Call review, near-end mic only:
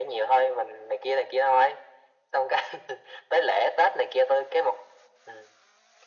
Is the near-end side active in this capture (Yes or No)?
No